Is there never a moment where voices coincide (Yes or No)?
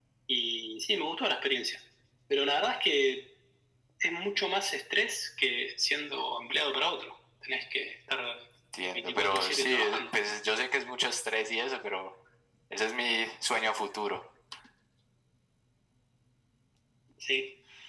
No